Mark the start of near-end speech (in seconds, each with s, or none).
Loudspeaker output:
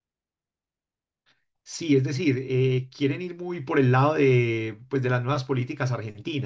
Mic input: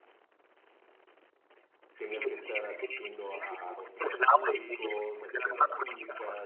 2.0 s